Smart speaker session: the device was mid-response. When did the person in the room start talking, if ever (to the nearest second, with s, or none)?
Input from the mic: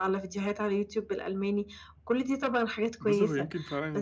3 s